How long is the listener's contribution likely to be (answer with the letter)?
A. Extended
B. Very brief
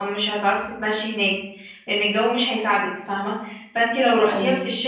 B